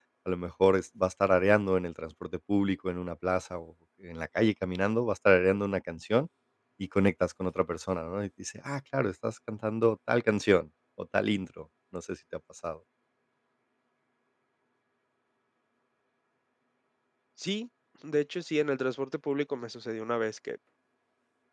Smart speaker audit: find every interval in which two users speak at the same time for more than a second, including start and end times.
none

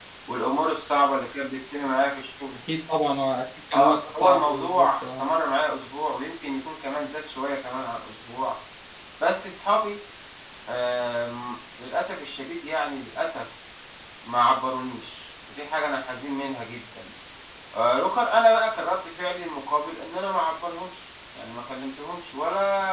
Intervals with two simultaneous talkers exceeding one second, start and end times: 3.7-5.2

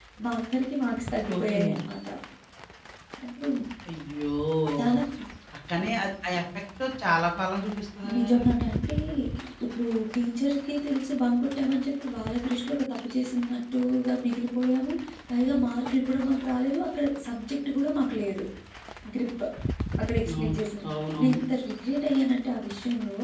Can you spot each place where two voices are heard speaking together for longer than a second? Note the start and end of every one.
none

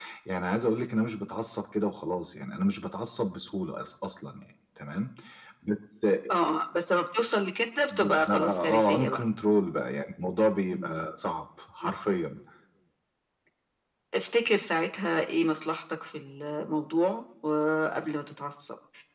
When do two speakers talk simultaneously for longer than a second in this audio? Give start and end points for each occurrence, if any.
8.0-9.2

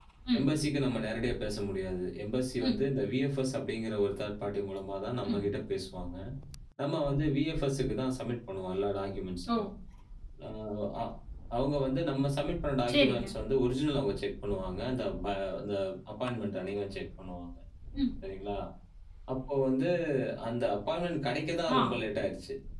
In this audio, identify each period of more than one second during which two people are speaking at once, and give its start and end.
none

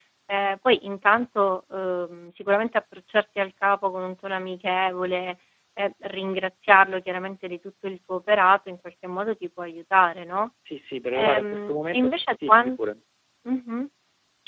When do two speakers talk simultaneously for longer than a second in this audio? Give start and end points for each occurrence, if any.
11.1-12.7

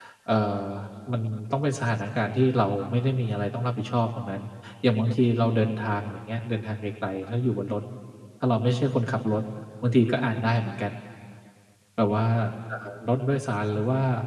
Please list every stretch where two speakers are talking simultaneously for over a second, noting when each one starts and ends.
none

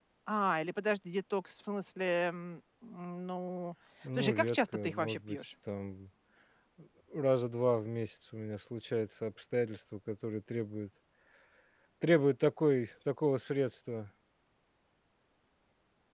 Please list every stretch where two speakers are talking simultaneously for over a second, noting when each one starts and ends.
4.2-5.4

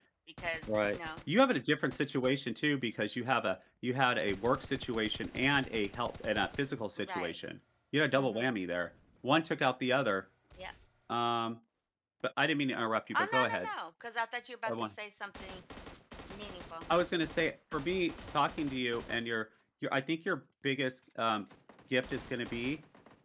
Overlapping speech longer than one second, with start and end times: none

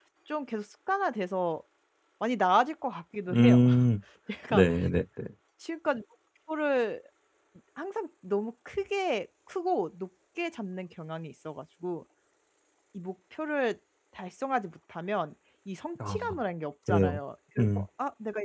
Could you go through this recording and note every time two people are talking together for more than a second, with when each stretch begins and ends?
none

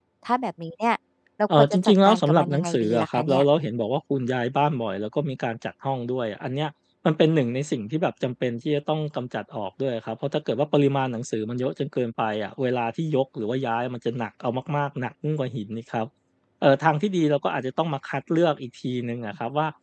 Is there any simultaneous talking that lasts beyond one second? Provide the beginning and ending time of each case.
1.6-3.4

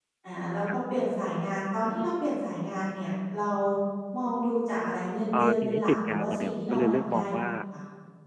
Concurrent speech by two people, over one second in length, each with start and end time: 5.3-7.5

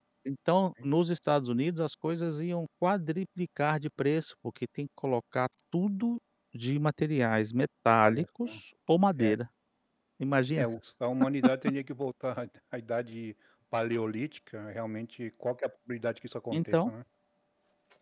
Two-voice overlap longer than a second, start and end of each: none

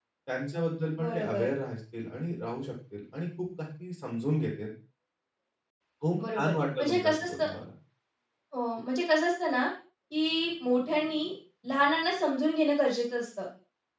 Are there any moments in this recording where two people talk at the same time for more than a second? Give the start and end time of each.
6.2-7.5

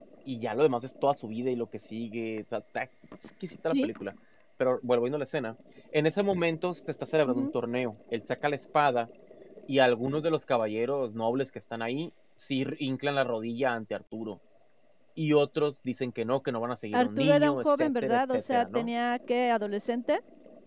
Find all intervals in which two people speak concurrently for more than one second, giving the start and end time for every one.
16.9-18.9

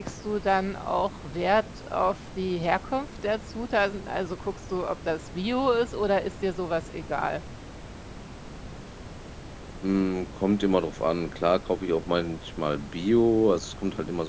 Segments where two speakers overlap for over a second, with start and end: none

